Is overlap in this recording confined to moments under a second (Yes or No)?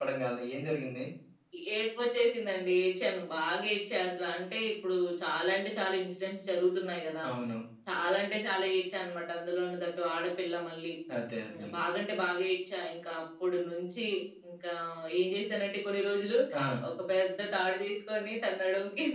Yes